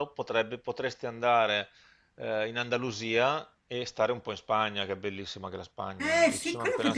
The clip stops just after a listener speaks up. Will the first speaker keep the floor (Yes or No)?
No